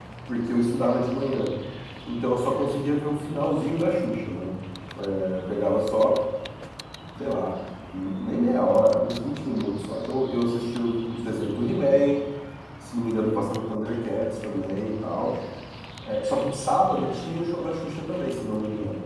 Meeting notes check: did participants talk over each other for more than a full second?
No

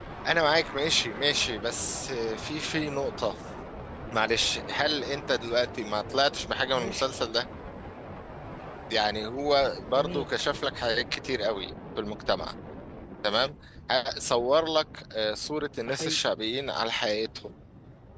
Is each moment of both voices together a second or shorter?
Yes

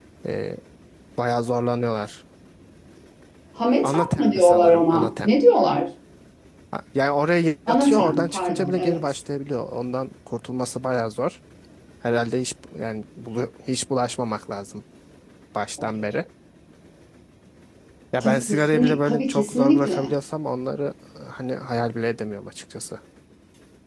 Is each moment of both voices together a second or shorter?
No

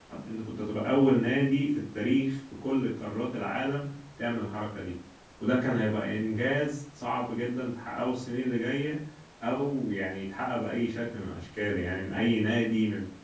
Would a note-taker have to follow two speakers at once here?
No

